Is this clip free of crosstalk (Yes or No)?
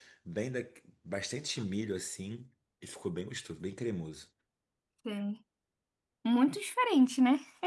Yes